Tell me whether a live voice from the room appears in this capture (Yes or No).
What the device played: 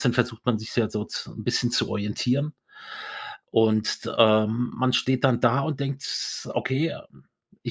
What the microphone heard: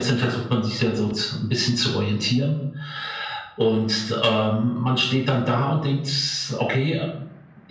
No